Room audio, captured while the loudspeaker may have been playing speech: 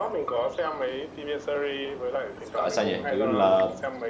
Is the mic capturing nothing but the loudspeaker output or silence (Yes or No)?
No